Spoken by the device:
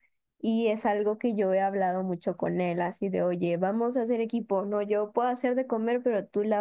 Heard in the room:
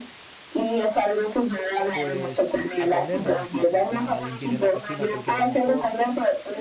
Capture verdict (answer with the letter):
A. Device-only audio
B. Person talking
B